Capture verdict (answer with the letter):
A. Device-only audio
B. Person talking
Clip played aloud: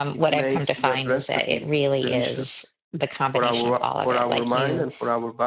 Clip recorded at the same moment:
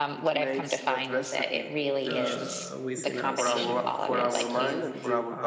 B